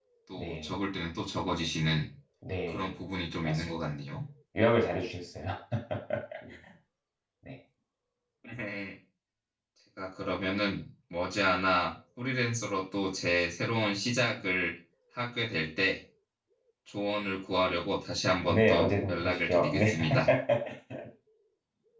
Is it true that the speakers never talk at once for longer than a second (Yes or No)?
No